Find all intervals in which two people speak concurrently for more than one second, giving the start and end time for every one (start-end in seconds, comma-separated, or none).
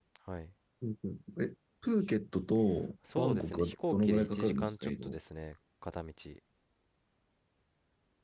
3.2-5.2